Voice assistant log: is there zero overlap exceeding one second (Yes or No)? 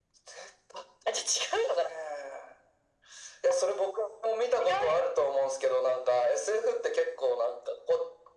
Yes